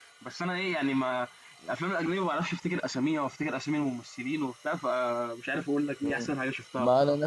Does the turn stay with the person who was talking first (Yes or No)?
No